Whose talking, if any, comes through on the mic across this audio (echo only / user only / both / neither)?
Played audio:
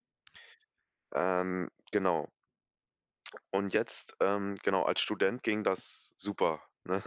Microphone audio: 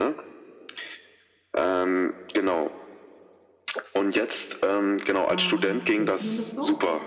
both